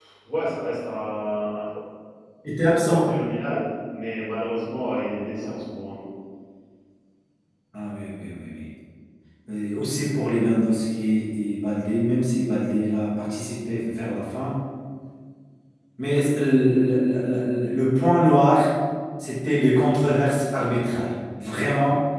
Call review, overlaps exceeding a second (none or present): none